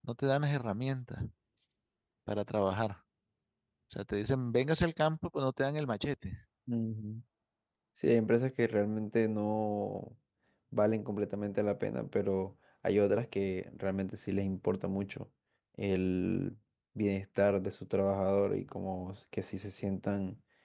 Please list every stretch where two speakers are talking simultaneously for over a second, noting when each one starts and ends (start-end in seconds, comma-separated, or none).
none